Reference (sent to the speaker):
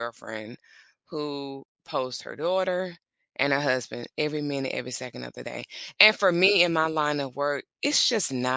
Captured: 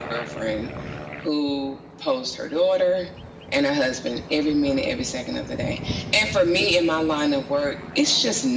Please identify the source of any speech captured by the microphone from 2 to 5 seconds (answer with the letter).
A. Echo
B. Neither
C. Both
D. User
A